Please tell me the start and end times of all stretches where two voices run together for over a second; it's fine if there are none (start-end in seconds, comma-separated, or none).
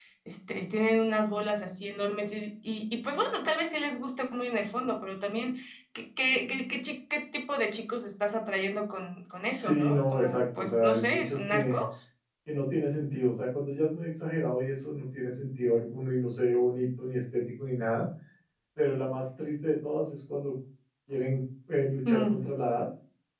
9.6-11.8